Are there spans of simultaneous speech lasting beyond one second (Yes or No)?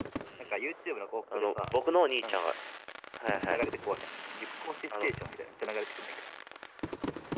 No